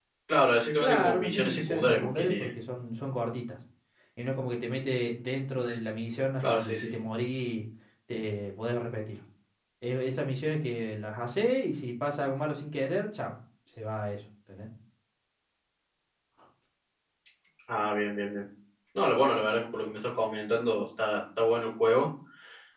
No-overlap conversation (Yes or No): No